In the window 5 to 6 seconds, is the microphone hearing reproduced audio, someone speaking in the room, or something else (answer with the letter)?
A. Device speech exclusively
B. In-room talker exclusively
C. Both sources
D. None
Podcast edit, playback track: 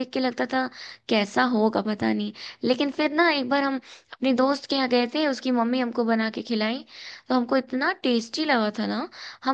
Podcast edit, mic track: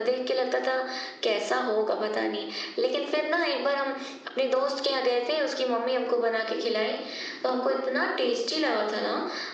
A